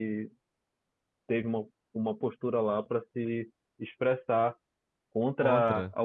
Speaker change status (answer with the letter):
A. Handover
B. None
B